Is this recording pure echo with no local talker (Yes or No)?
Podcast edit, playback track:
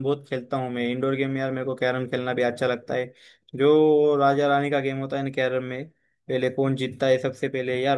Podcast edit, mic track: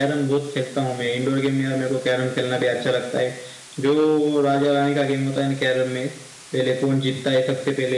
Yes